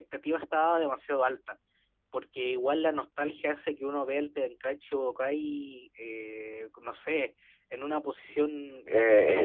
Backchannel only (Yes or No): No